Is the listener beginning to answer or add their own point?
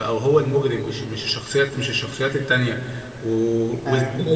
No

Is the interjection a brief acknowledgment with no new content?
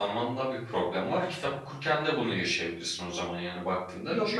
No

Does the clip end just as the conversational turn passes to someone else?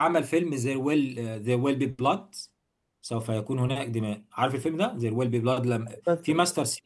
No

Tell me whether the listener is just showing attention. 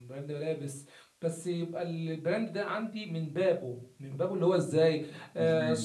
Yes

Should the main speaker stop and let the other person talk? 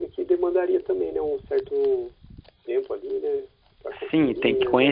Yes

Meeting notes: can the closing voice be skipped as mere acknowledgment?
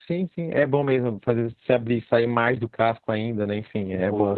No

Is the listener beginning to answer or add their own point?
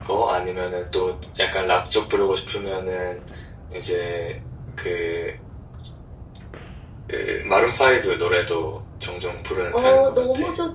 Yes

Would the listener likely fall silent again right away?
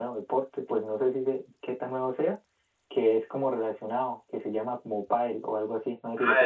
No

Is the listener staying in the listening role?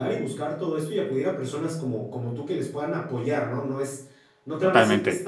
Yes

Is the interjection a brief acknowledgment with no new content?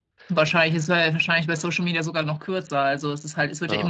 Yes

